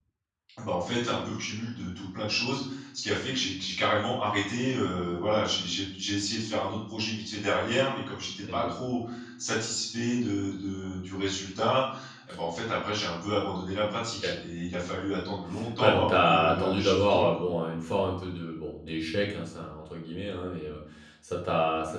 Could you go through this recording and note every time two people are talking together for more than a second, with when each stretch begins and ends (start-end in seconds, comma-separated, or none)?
15.8-17.4